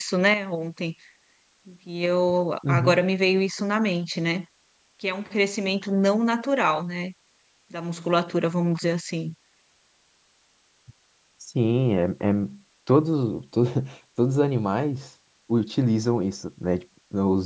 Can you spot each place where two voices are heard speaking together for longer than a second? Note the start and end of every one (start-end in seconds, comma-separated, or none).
none